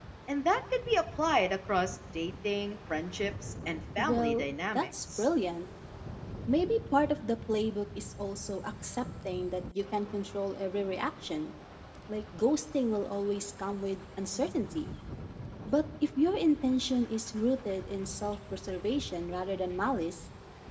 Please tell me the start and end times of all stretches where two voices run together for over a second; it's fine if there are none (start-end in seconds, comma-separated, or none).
4.0-5.3